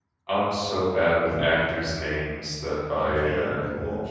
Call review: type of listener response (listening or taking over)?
taking over